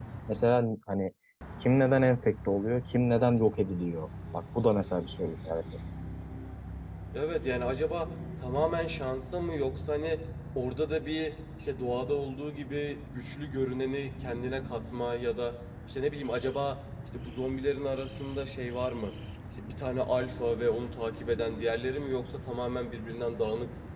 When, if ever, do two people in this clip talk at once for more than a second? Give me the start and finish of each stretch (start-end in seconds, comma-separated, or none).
none